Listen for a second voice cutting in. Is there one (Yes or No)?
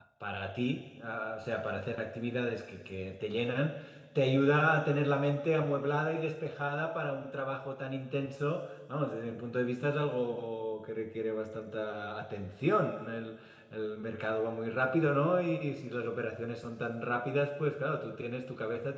No